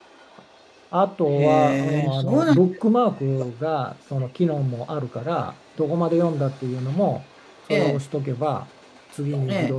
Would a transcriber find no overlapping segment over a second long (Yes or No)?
No